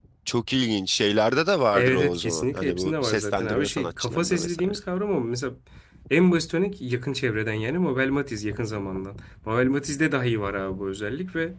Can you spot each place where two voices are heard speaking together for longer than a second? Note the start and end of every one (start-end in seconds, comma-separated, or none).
1.7-4.8